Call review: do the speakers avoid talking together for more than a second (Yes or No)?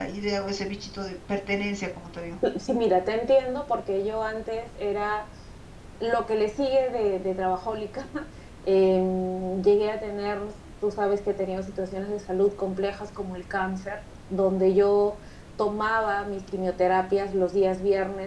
Yes